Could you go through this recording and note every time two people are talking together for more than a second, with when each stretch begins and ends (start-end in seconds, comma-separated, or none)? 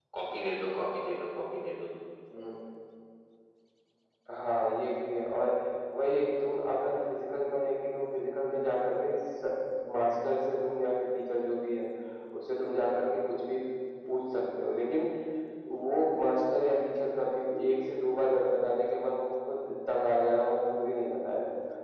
none